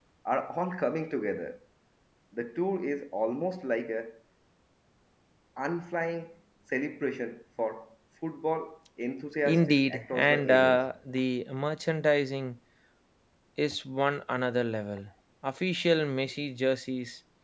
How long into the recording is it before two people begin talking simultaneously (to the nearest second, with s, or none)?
9 s